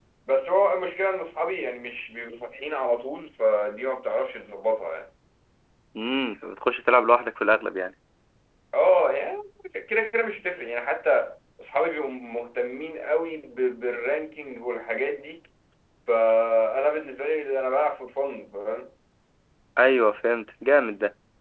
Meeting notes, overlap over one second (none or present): none